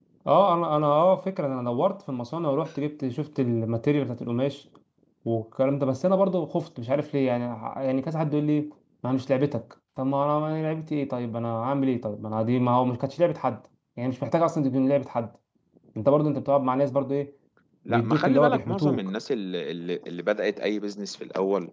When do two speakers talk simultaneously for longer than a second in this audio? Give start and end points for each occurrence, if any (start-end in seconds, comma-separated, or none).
17.9-19.1